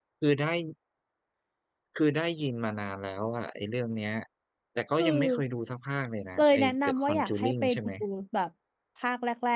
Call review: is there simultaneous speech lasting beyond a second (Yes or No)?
Yes